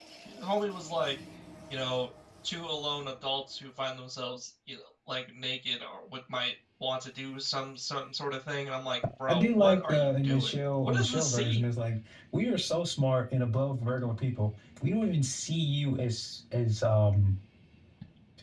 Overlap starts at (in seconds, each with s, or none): 9.3 s